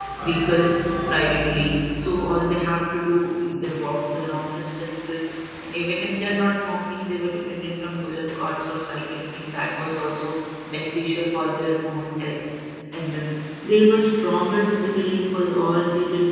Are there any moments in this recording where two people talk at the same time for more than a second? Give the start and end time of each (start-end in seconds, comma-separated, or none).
none